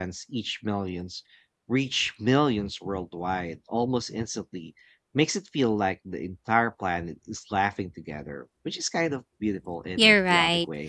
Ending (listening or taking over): taking over